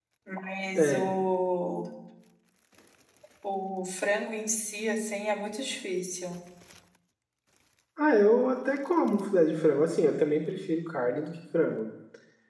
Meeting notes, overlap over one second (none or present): none